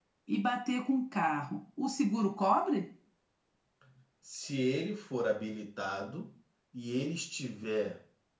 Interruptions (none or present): none